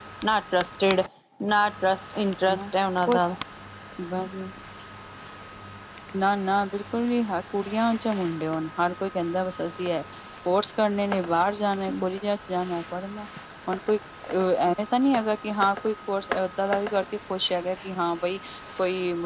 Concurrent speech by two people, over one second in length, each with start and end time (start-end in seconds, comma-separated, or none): none